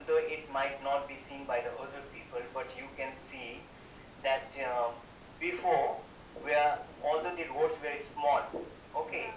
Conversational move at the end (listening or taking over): listening